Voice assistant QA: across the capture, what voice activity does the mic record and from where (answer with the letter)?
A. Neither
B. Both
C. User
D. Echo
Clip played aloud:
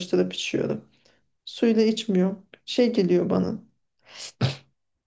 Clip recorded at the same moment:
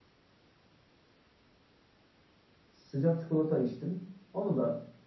C